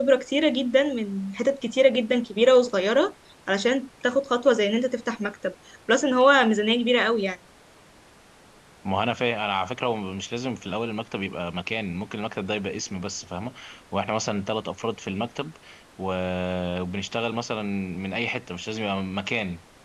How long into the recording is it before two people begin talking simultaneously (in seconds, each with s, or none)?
none